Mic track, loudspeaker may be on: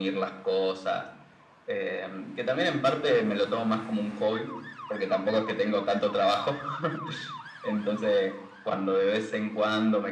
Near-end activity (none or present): none